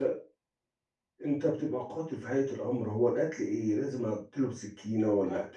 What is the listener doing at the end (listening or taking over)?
listening